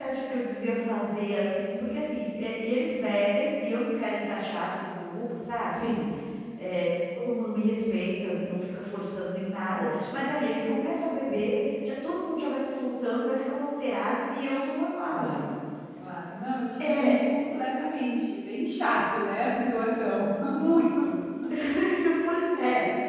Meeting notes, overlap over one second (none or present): none